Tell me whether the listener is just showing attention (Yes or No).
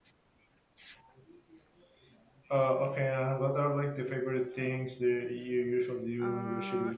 No